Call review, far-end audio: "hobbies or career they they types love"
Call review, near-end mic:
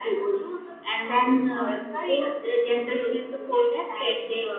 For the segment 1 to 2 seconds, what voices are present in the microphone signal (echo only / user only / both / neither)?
both